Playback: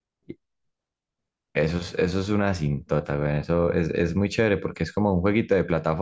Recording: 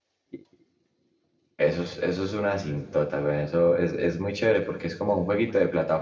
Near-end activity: none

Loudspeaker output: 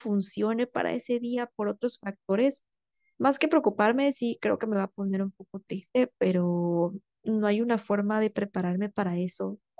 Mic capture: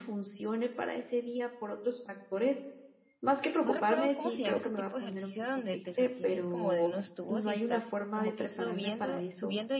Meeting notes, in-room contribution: present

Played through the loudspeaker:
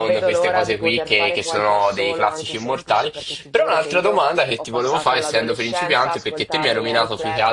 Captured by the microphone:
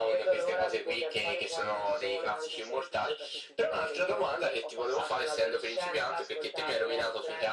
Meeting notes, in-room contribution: none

